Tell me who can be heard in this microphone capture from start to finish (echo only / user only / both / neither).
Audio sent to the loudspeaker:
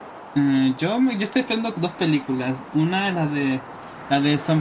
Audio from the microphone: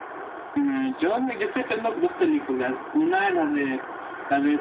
echo only